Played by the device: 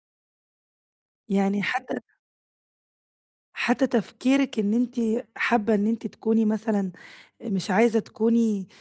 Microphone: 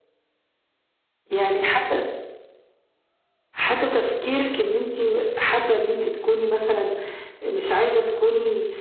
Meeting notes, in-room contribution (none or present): none